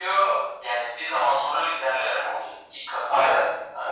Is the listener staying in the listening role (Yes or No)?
No